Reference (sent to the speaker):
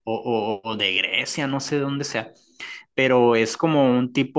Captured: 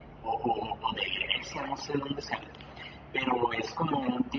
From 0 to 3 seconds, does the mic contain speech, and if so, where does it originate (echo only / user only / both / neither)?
echo only